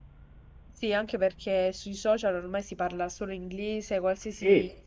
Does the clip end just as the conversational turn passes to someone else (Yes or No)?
No